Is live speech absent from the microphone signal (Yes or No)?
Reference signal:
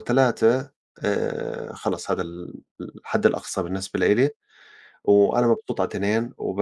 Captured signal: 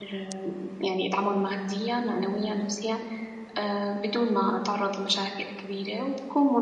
No